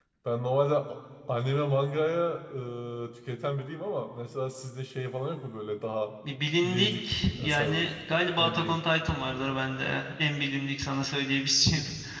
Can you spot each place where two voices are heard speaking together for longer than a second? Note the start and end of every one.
6.6-7.8

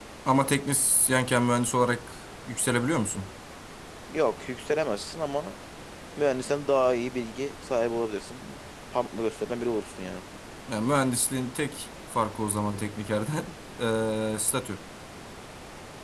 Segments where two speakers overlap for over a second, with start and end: none

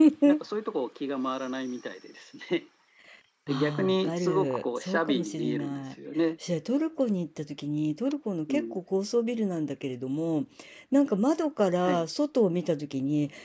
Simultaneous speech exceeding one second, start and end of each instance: 3.5-5.8

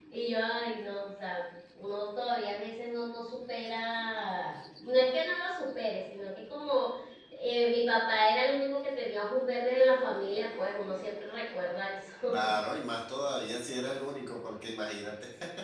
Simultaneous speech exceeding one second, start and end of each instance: none

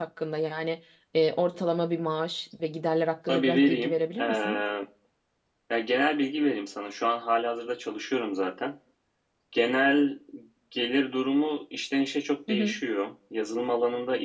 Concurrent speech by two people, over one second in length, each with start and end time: 3.3-4.6

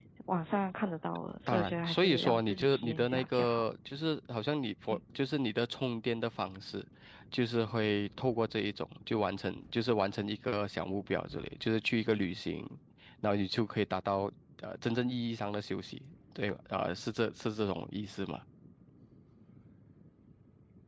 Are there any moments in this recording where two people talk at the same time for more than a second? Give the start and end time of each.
1.5-3.6

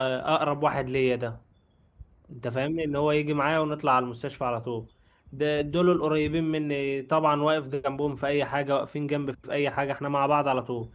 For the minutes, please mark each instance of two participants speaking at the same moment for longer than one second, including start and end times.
none

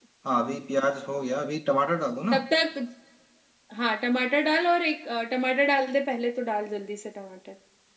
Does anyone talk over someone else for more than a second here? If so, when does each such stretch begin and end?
none

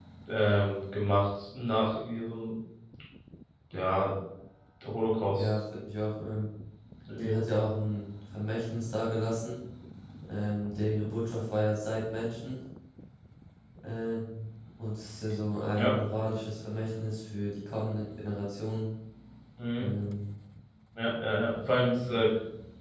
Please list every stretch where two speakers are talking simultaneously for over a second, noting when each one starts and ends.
none

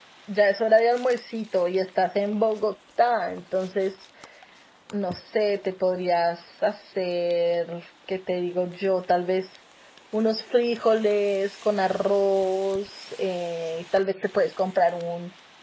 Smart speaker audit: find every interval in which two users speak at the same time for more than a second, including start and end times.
none

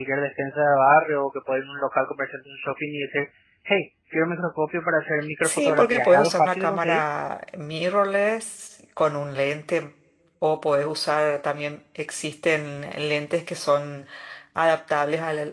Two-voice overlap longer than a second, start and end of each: 5.4-7.0

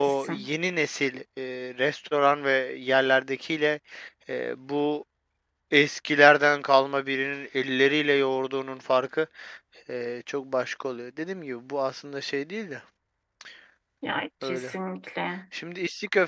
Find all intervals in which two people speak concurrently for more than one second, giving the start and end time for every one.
none

